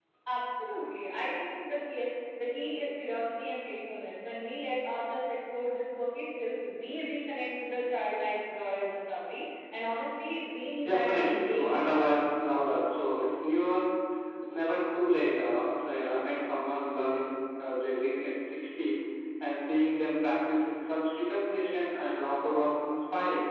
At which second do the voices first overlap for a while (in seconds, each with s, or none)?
10.8 s